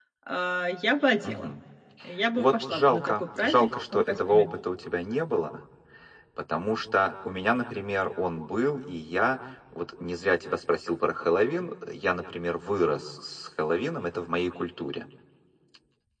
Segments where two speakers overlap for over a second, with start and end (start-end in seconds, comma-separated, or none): 2.4-4.5